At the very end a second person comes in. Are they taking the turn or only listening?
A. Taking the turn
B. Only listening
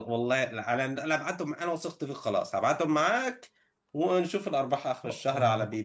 A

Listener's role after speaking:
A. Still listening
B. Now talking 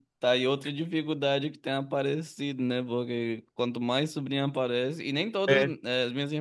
A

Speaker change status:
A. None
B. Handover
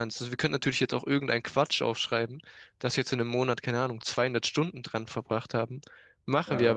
A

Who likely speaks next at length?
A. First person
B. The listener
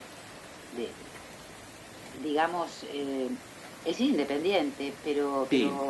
A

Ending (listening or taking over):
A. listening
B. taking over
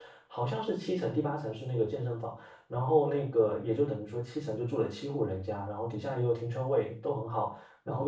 A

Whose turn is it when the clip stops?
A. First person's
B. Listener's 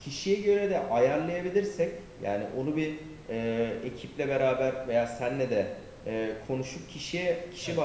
A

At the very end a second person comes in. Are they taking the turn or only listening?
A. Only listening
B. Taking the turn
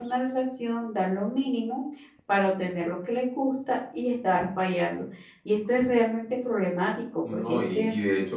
B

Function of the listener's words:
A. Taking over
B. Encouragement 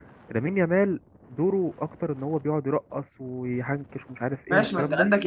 A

